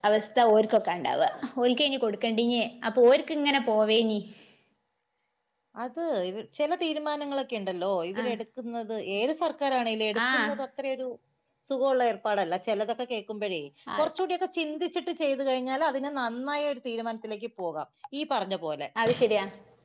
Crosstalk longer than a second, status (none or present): none